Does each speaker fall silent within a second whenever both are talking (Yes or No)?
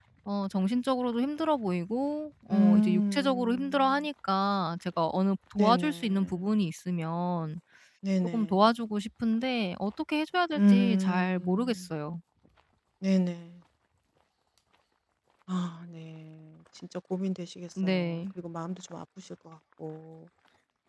No